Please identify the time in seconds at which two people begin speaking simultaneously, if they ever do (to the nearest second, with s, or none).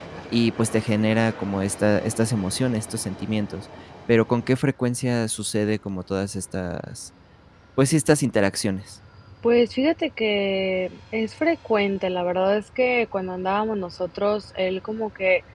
none